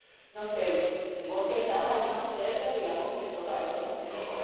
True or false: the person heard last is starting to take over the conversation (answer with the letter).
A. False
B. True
A